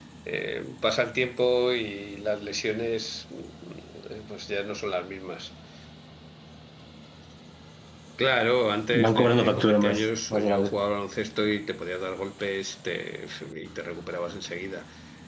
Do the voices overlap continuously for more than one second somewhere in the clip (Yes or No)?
Yes